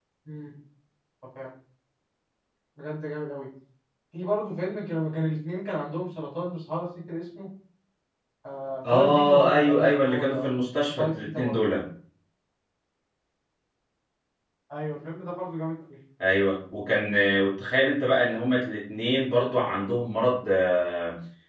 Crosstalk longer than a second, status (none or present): present